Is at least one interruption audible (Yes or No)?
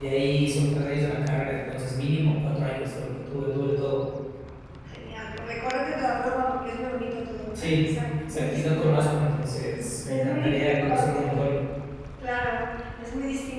Yes